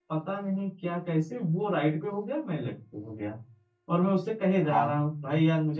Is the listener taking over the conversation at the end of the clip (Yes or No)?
No